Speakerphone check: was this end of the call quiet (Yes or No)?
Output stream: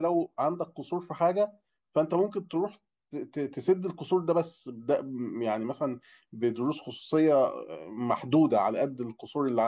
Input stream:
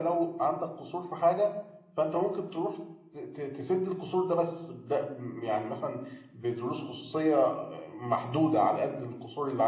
Yes